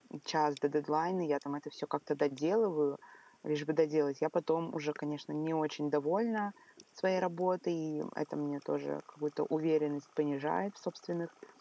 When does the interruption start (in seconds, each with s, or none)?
none